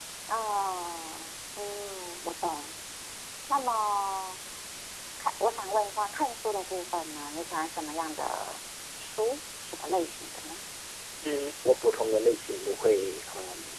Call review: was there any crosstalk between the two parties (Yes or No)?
No